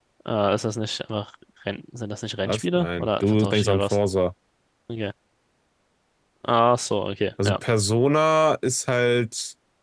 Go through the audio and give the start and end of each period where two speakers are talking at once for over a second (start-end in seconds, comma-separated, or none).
2.4-4.0